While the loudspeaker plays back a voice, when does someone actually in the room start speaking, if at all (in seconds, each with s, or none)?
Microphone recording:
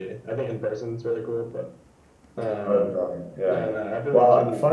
2.4 s